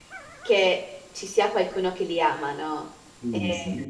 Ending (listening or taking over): taking over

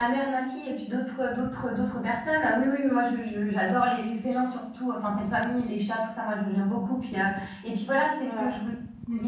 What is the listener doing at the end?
listening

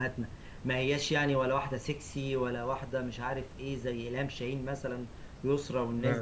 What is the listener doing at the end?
listening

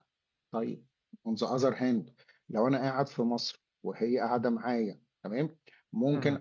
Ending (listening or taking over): listening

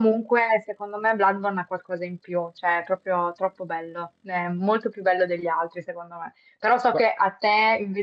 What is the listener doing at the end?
listening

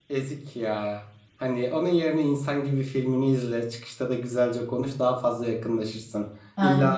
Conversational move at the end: listening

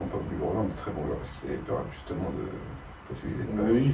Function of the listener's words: taking over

